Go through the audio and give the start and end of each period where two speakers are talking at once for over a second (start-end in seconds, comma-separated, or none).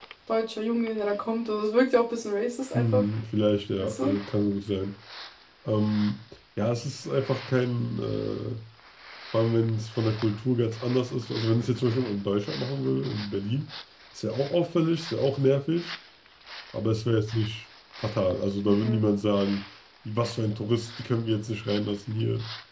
none